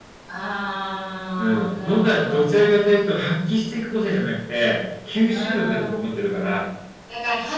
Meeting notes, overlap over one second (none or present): present